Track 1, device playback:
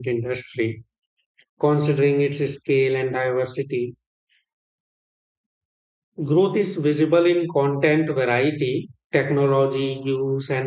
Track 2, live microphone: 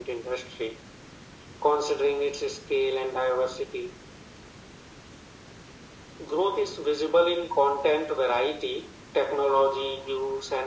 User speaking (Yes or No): No